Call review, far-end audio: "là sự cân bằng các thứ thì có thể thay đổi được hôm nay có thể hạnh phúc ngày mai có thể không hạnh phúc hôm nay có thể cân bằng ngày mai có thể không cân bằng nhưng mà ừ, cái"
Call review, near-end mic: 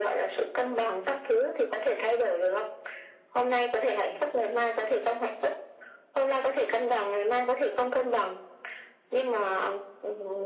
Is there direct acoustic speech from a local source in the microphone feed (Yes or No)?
No